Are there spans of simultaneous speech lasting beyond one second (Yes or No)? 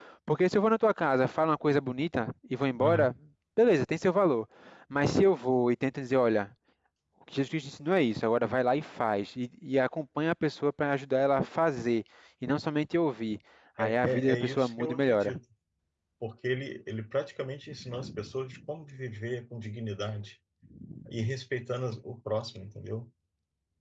Yes